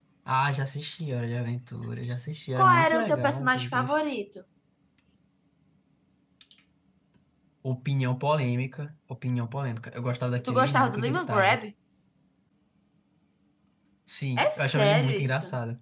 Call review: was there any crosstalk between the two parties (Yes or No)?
Yes